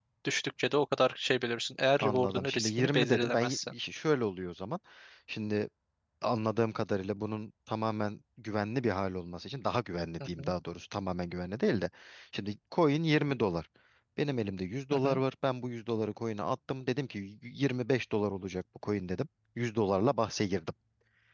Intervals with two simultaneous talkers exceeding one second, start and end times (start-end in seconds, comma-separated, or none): 2.0-3.7